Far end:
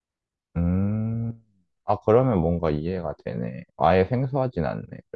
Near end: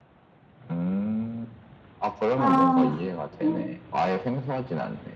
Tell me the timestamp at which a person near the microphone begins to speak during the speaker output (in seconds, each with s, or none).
2.4 s